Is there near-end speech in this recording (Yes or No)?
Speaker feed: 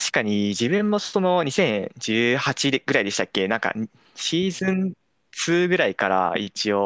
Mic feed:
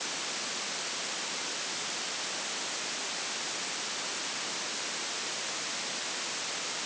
No